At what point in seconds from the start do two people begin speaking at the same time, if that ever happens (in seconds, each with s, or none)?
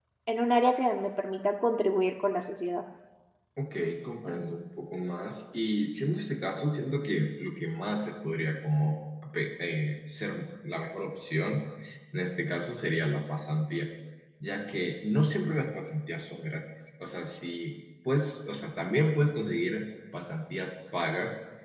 none